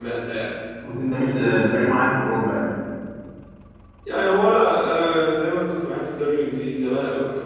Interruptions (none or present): none